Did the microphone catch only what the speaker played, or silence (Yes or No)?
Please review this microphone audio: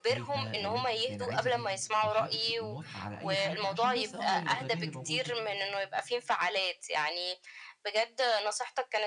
No